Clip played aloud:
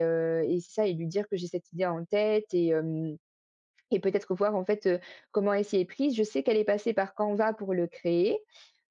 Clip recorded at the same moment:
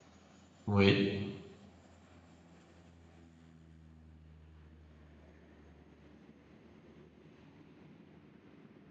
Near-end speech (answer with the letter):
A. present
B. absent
A